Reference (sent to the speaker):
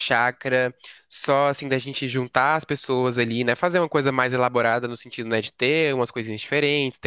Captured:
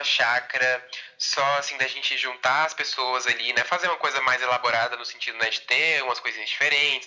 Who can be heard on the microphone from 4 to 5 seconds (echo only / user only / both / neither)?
echo only